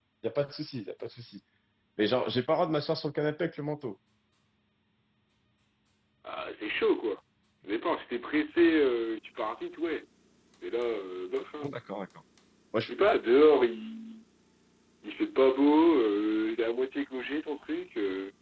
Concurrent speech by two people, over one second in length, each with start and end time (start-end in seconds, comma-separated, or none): none